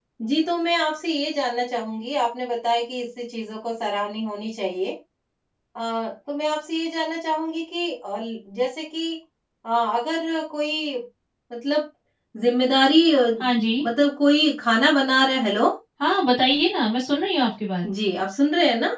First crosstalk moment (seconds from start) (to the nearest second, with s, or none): none